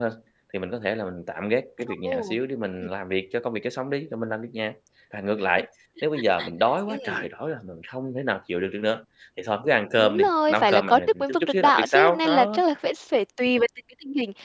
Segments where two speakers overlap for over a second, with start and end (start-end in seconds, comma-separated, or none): 10.0-12.6